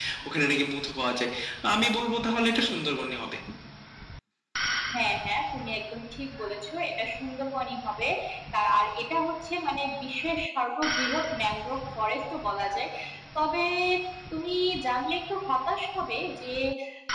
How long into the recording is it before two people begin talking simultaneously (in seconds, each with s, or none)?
none